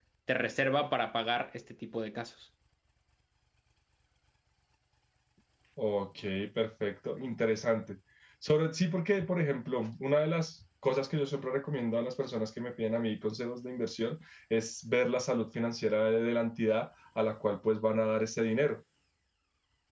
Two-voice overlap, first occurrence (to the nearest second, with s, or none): none